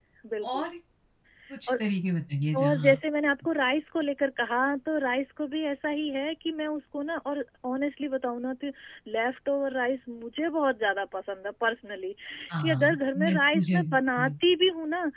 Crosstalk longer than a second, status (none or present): present